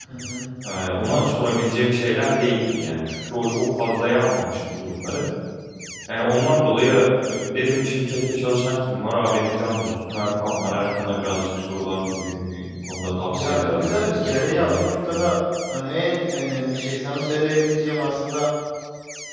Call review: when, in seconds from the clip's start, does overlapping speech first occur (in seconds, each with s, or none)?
13.3 s